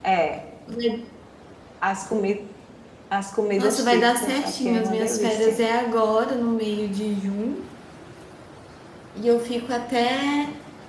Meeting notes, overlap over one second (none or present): present